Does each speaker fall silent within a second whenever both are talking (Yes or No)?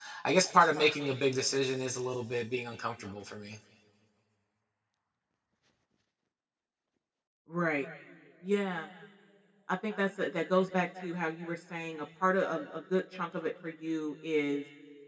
Yes